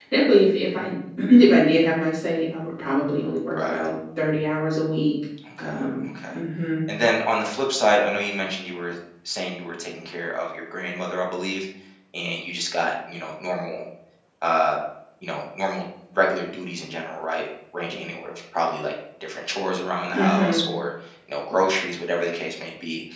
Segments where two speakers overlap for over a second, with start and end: none

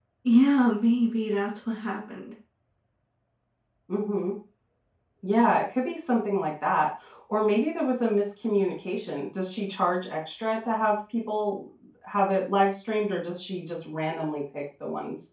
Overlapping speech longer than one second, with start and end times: none

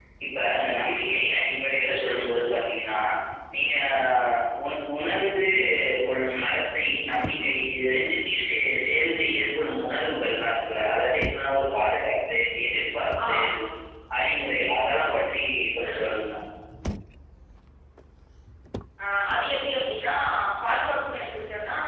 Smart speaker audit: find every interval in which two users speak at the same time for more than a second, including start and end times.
none

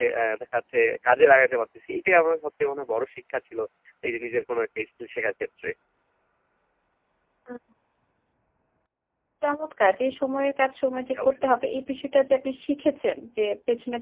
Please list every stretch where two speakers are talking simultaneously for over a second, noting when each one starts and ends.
none

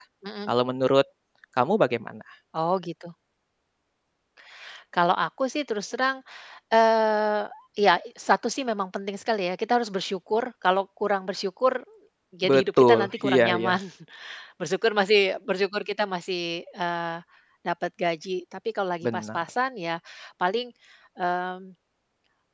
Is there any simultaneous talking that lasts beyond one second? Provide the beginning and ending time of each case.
12.5-13.7

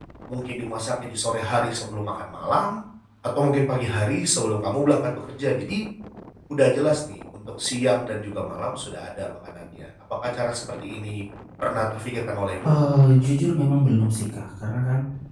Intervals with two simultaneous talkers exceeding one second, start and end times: none

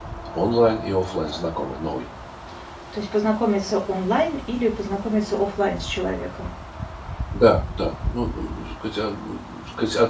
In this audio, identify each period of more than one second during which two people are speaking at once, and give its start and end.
none

